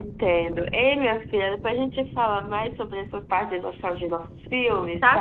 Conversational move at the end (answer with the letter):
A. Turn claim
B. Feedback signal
A